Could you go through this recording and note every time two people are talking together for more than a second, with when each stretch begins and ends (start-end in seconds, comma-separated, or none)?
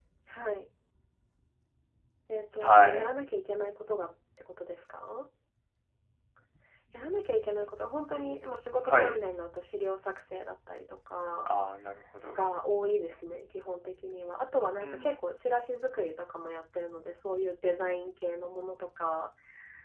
none